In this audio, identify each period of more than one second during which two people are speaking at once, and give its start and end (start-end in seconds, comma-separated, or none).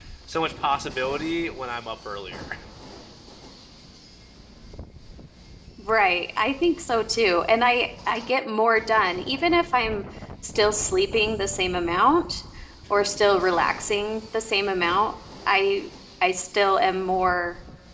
none